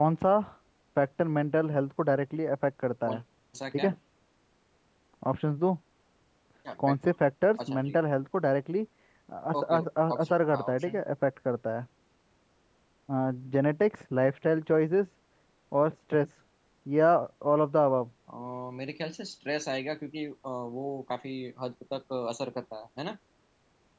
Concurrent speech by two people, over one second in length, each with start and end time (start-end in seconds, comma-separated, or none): 9.6-11.0